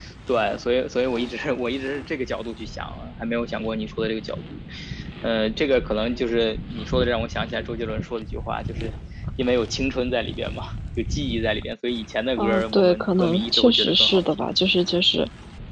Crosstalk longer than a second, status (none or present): present